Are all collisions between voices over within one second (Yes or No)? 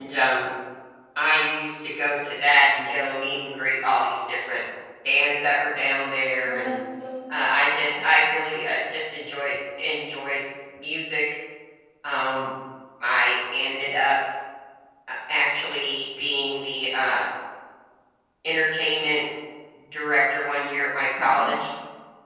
Yes